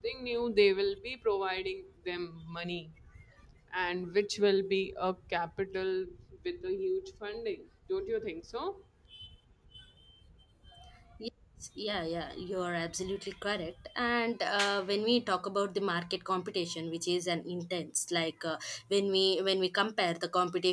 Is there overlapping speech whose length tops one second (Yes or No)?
No